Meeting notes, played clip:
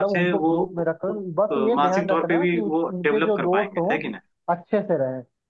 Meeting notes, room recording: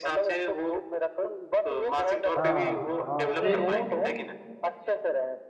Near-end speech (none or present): present